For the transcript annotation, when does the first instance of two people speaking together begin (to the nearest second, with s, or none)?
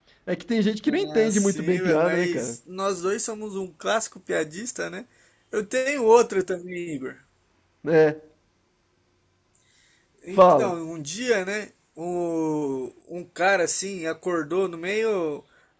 1 s